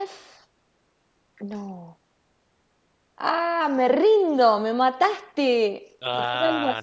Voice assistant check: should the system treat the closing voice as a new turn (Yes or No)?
Yes